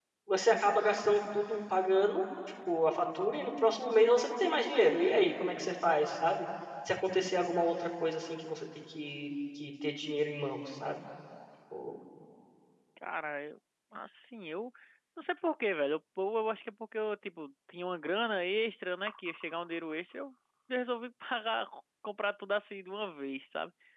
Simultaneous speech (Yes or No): No